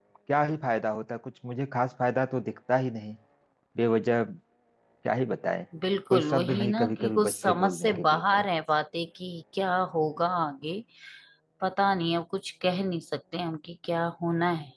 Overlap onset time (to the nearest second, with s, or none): 6 s